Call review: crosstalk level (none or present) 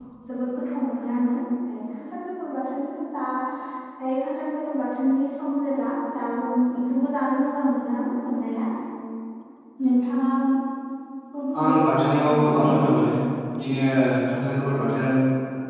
present